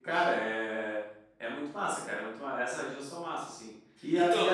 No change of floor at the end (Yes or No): Yes